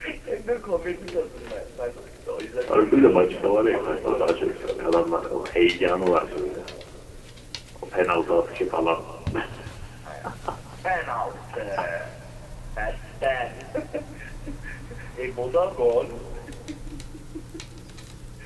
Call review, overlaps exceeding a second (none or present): present